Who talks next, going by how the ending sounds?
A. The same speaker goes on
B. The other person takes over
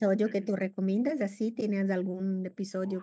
B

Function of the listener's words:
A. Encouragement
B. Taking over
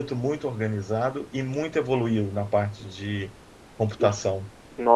B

